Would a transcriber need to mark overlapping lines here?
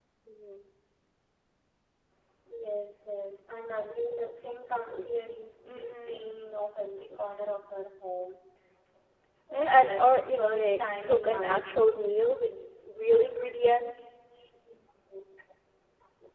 Yes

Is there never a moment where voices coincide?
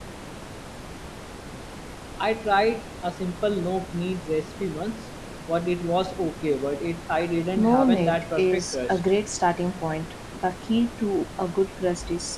No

